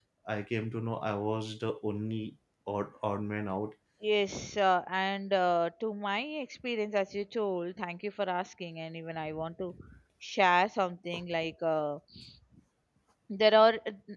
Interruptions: none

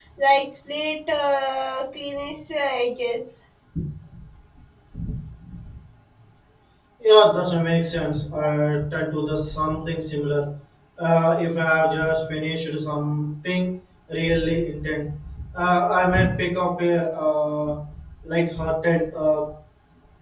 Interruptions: none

